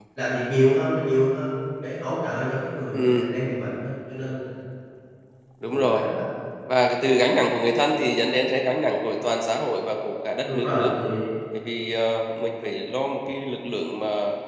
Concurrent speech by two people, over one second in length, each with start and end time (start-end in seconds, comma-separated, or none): none